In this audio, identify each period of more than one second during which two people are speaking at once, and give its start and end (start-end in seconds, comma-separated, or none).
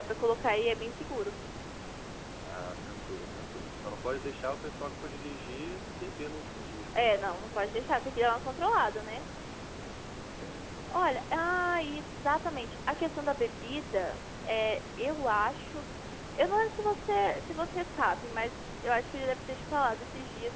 none